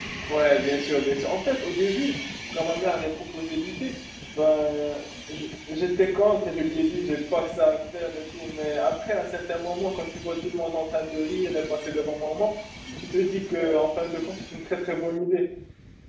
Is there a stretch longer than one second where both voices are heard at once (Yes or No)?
No